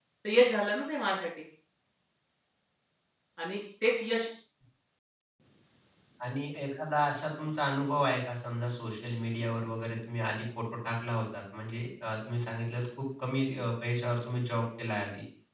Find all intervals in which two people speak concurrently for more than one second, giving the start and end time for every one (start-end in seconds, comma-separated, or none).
none